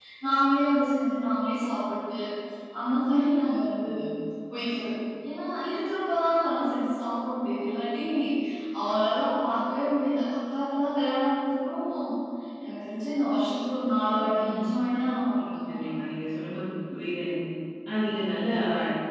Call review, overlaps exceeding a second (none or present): none